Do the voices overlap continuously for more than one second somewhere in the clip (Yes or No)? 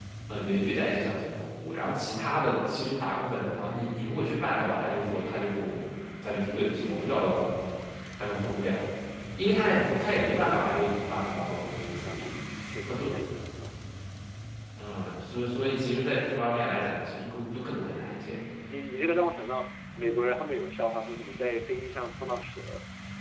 No